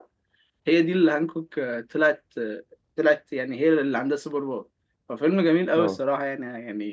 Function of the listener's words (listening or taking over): listening